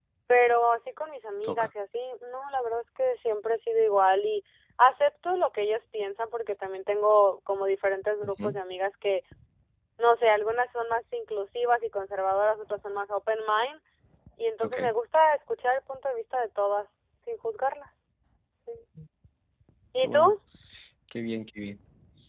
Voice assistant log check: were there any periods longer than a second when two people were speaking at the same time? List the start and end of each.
none

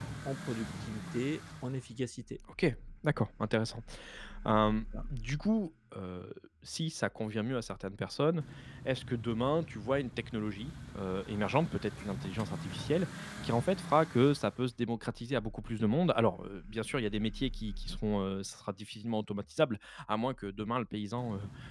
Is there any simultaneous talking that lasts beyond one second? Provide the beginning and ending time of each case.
none

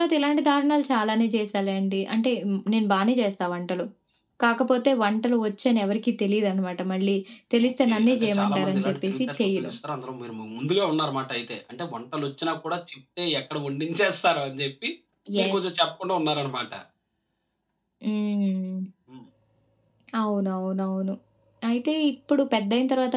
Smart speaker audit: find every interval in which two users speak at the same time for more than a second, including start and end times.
7.7-9.7

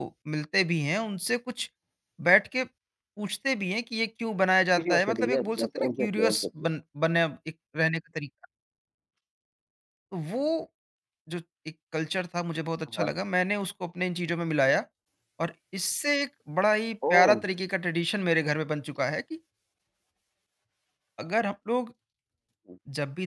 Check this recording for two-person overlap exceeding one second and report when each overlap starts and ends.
4.8-6.7

